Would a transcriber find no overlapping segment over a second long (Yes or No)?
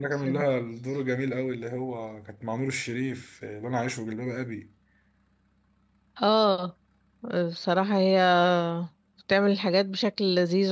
Yes